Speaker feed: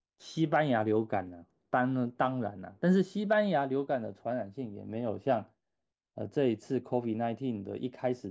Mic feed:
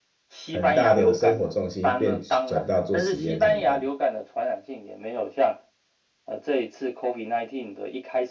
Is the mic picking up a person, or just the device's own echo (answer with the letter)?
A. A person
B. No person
A